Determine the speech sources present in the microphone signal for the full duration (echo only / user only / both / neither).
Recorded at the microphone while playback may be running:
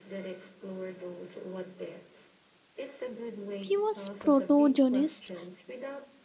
both